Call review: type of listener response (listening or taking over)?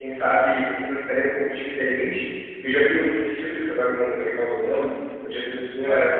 listening